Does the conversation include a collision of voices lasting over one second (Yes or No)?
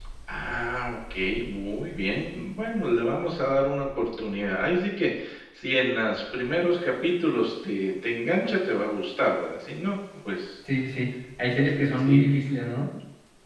No